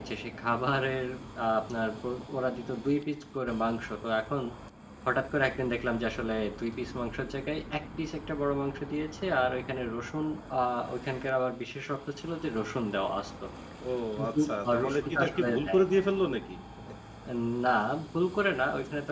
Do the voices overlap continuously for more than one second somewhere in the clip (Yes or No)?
Yes